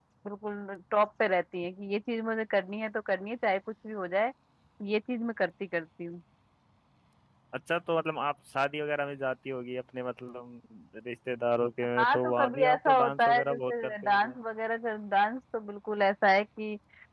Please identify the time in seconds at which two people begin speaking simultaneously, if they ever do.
12.0 s

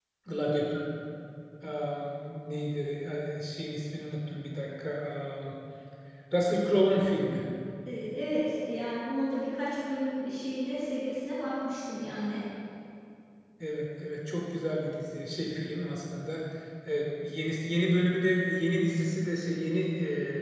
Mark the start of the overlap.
none

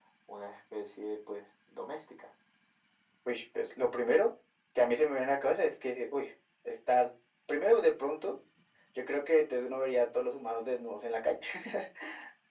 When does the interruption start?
none

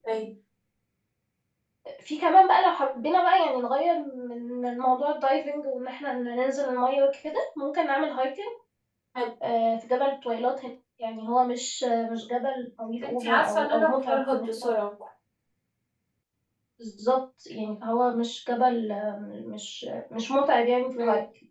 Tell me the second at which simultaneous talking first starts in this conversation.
13.0 s

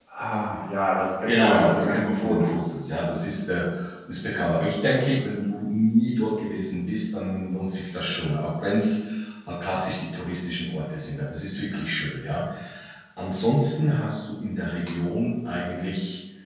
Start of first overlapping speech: 1.2 s

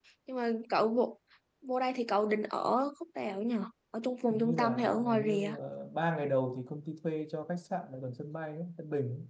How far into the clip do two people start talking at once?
4.3 s

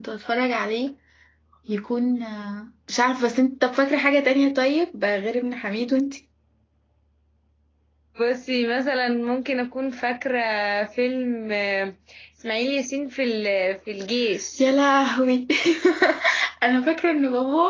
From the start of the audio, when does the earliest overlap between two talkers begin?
none

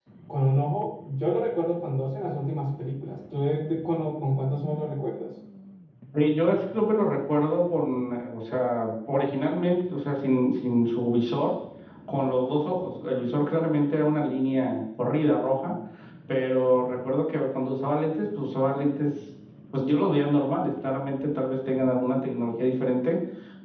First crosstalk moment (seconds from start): none

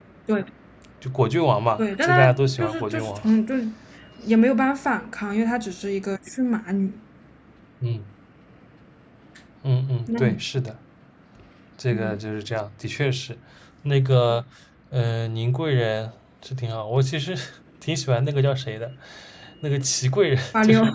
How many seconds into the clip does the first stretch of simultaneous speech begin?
1.8 s

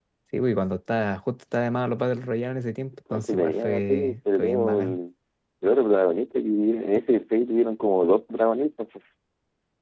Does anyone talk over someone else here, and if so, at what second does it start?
3.1 s

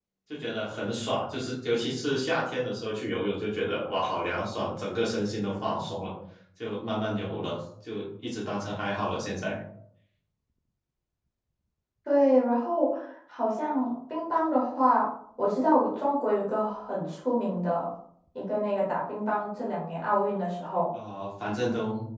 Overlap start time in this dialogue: none

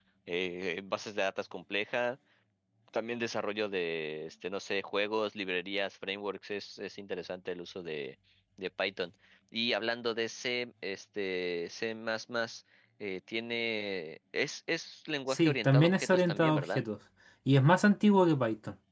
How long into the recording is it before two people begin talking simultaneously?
15.3 s

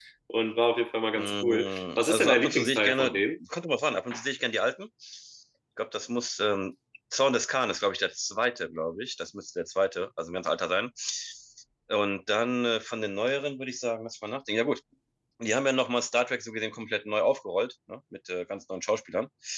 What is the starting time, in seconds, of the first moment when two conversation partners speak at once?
1.2 s

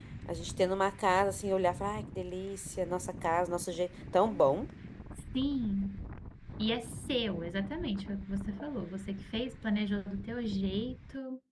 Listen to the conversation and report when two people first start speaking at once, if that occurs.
none

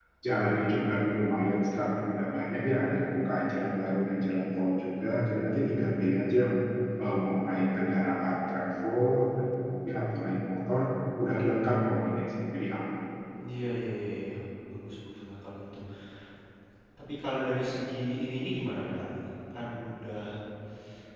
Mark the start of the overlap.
none

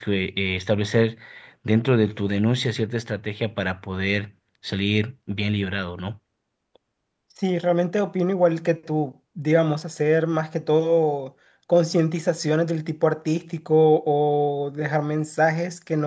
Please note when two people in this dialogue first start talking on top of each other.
none

